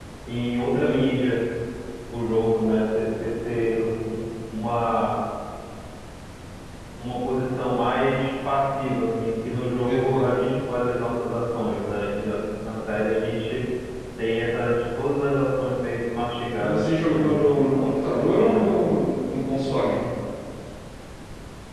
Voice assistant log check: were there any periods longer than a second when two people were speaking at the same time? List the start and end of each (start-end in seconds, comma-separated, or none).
16.6-18.8